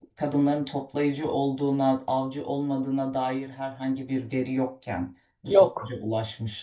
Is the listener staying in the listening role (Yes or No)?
Yes